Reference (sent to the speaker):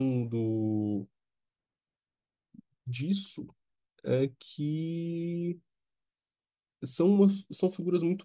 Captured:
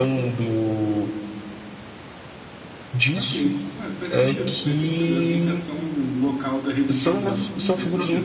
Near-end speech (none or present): present